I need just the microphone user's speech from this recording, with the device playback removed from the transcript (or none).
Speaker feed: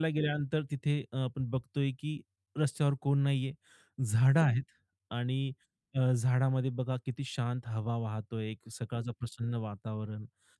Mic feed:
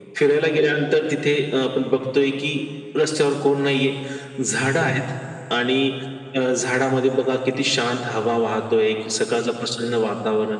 none